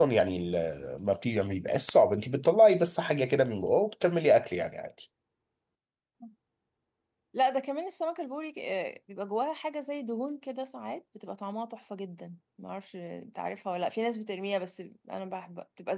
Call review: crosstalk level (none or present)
none